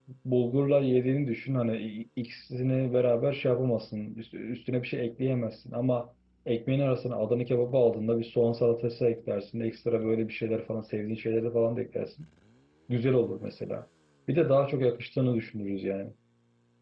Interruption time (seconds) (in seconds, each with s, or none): none